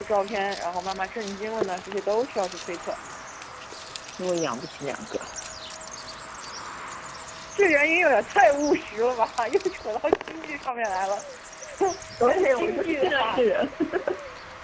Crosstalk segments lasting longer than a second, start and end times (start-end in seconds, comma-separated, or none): 12.2-13.4